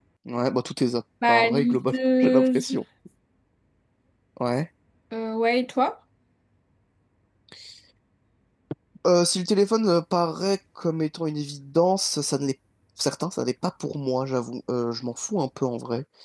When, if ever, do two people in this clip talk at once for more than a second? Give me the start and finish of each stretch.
1.3-2.7

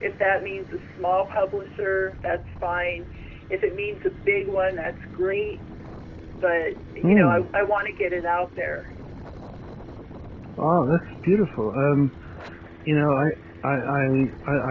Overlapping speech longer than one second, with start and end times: none

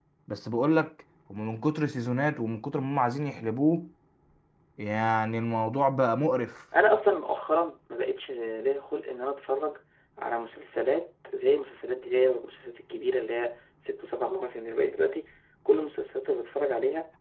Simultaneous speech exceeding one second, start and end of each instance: none

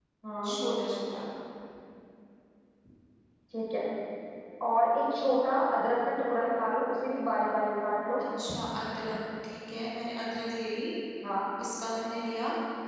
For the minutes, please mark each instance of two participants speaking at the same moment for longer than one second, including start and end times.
none

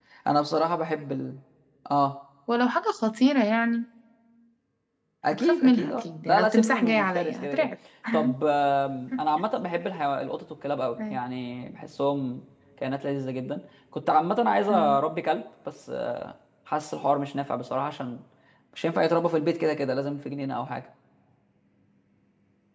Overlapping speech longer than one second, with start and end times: 5.3-7.7

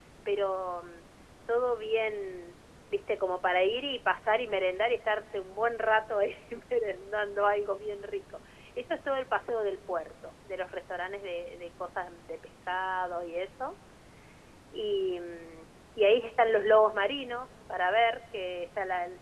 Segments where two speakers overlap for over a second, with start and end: none

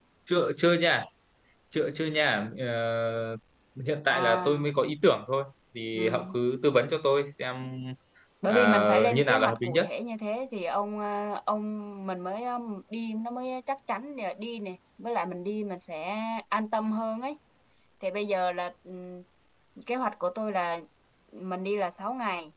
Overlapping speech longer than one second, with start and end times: 8.5-9.8

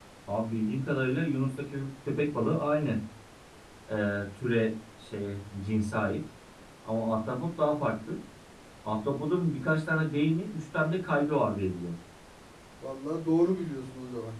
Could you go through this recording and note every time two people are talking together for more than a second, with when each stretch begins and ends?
none

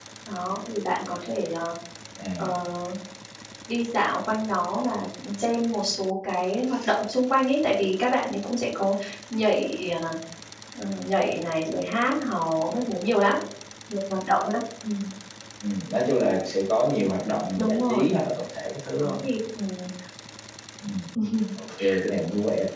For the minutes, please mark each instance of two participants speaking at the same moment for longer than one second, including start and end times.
none

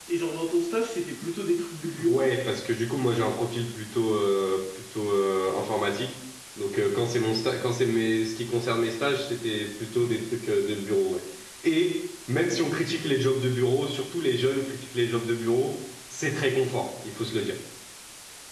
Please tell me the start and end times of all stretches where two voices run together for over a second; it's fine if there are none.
none

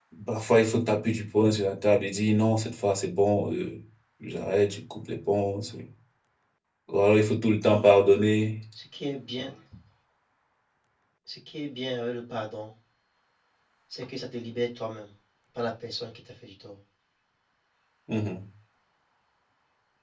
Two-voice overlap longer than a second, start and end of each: none

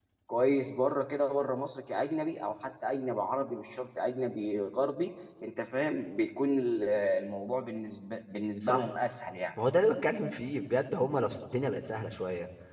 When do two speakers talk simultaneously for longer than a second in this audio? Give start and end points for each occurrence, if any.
none

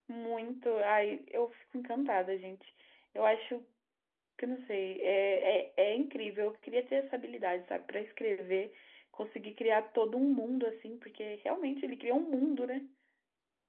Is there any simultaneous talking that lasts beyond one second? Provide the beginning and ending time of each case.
none

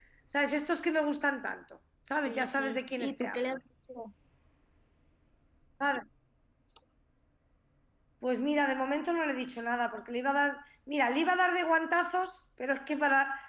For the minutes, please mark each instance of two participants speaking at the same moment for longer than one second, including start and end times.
2.2-3.6

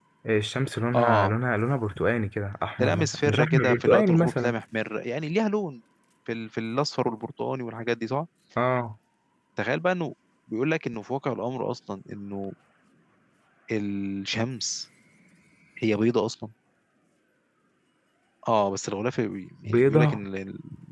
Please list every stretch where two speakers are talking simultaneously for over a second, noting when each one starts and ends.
2.8-4.5

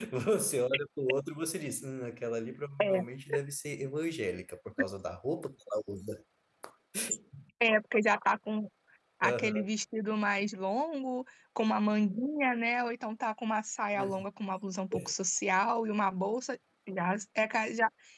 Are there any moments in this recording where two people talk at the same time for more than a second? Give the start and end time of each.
none

